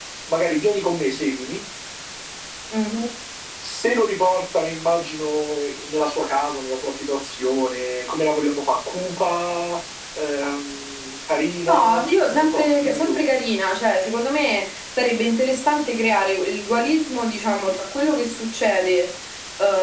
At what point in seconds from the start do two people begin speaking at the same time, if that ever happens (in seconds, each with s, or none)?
11.7 s